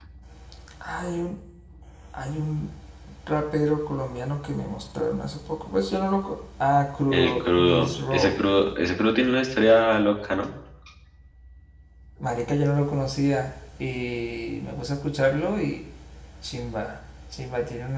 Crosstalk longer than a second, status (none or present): present